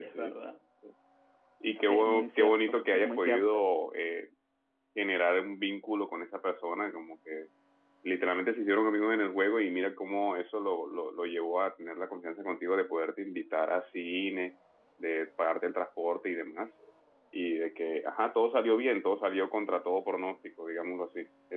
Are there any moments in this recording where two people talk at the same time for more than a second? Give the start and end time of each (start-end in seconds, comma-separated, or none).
1.9-3.6